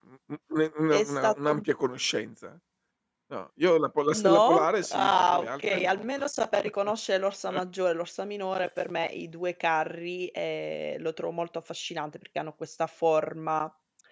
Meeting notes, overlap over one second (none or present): present